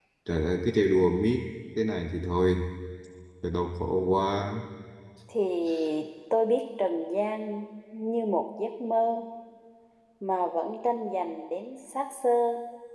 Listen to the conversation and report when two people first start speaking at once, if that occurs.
none

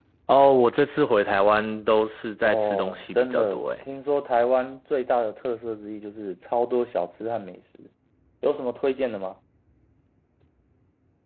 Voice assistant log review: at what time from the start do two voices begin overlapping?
2 s

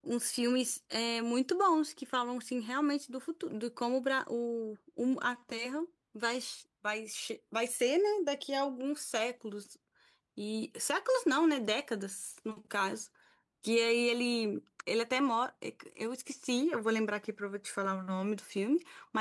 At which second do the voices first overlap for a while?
none

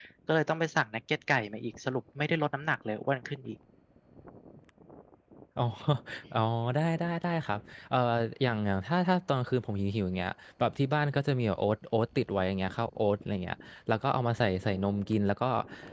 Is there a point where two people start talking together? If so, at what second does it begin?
none

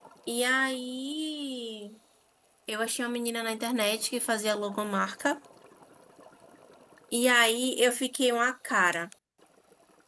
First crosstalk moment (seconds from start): none

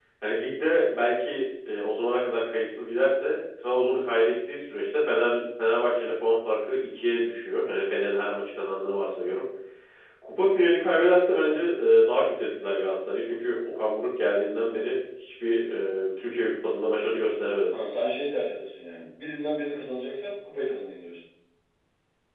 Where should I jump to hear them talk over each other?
none

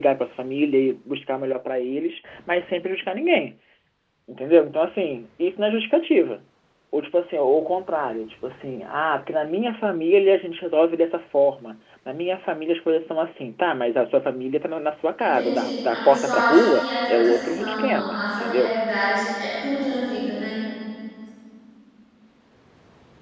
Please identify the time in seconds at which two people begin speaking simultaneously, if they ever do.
15 s

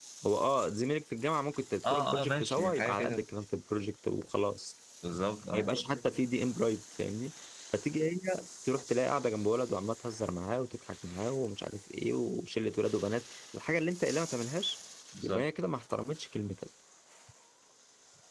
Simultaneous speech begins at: 2 s

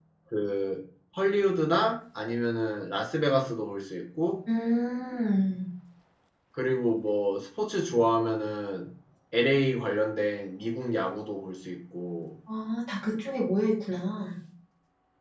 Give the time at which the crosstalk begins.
none

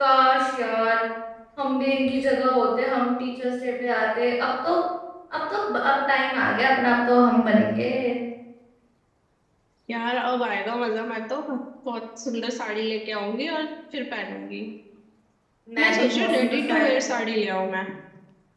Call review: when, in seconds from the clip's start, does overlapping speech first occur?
16 s

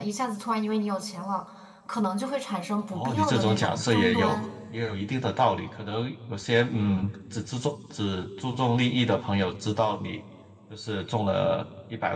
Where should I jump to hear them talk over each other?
3 s

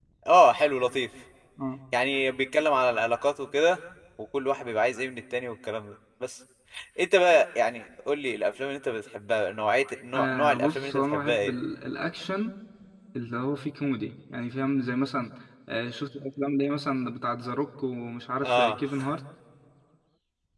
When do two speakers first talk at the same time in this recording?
10 s

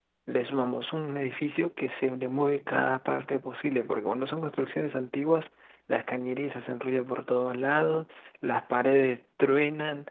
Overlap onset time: none

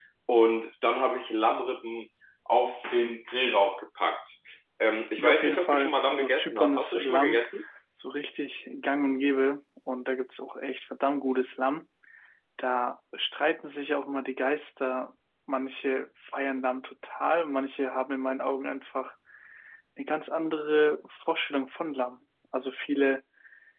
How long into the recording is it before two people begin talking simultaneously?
5 s

